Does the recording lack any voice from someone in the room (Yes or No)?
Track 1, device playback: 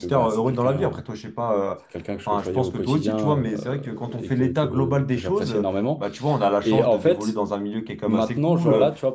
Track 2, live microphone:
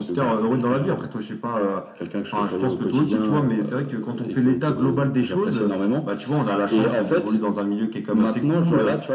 Yes